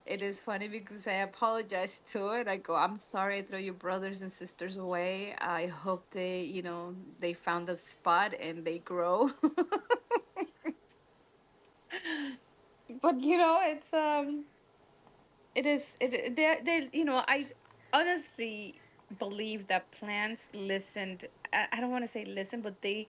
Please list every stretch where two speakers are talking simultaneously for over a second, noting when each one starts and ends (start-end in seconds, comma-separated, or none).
none